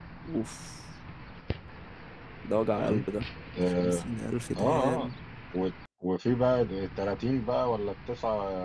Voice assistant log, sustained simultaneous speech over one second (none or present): none